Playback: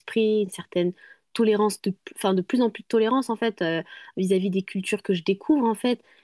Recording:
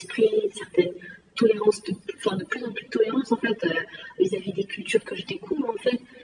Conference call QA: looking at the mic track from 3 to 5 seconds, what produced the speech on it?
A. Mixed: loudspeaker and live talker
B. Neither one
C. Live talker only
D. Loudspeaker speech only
D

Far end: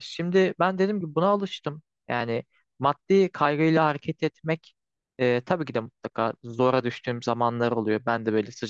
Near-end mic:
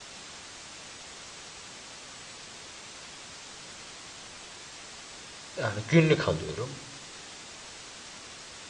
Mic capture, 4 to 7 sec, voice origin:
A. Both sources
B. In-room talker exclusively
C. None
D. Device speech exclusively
B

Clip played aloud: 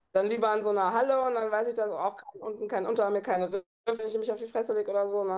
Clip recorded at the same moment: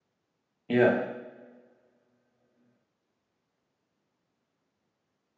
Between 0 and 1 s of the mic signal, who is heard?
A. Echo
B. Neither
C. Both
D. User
D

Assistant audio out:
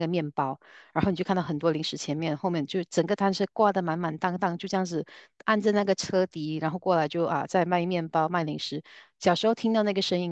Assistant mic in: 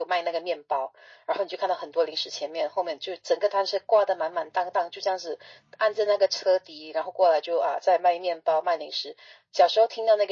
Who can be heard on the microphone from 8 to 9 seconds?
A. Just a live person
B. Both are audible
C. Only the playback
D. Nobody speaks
C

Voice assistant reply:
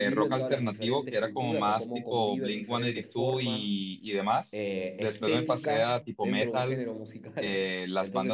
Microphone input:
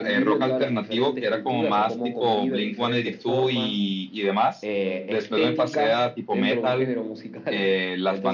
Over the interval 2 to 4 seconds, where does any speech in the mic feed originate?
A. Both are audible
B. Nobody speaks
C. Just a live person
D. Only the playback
D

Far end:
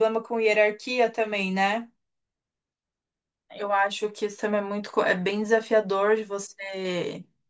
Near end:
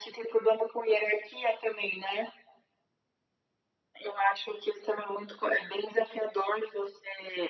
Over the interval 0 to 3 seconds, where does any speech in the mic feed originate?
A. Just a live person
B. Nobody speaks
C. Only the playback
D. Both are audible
C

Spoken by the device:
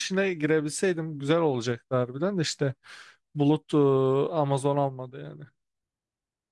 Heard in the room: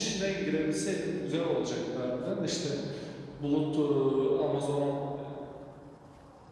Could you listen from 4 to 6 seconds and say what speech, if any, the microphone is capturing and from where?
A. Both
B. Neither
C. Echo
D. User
C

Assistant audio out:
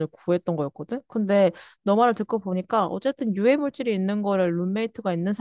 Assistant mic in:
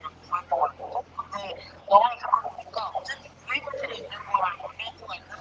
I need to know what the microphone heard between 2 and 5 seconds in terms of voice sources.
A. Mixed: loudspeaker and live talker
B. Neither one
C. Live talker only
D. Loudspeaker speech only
D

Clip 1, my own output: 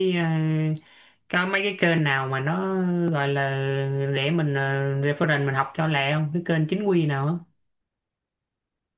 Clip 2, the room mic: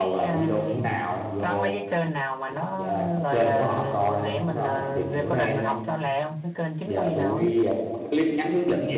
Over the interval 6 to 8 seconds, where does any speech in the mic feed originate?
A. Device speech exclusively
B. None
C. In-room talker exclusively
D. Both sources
D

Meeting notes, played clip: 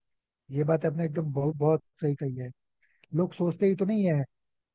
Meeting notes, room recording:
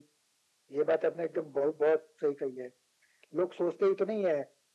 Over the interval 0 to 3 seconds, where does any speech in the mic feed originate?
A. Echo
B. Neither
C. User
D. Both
A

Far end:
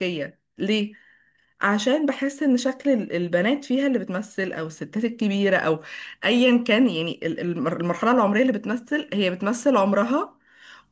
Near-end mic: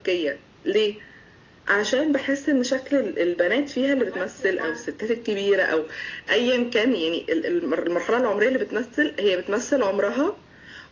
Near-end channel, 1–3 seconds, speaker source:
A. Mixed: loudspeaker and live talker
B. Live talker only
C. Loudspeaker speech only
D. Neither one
C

